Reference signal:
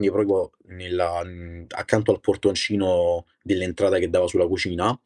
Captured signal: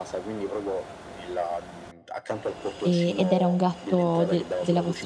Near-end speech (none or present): present